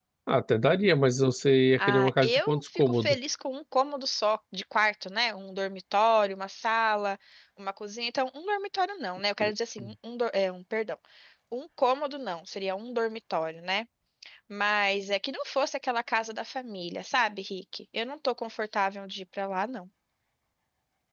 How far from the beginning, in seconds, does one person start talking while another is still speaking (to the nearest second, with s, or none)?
2 s